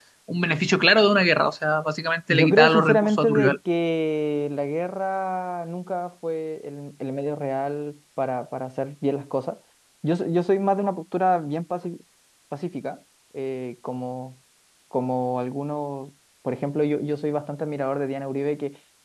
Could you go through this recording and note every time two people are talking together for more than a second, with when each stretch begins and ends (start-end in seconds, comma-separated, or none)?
2.3-3.6